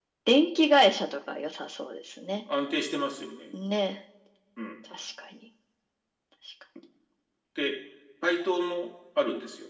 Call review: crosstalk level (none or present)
none